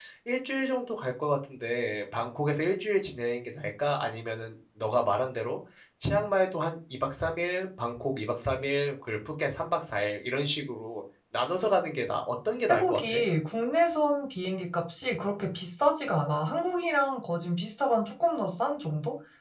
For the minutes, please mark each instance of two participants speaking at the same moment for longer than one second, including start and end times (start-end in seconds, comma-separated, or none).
none